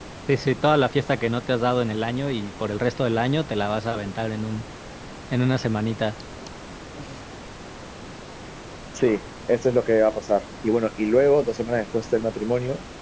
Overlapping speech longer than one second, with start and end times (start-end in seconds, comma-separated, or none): none